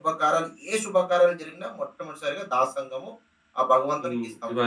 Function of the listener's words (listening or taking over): taking over